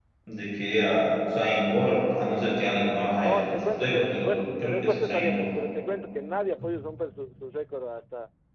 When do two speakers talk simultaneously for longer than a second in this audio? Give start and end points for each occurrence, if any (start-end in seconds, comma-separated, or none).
3.2-5.4